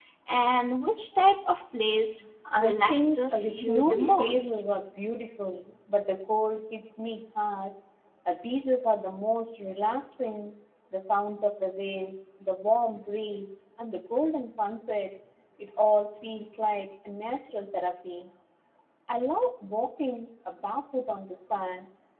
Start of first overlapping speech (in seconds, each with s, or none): 2.5 s